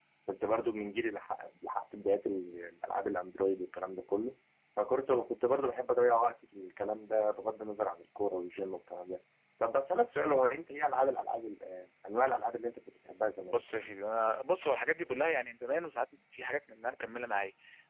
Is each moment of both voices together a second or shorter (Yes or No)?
Yes